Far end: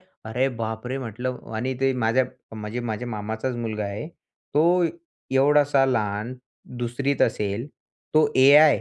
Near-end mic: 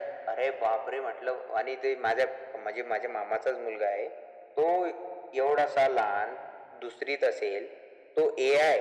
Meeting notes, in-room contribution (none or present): none